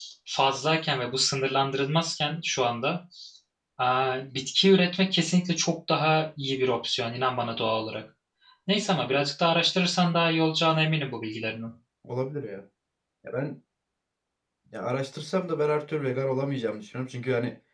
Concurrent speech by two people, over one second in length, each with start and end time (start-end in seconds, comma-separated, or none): none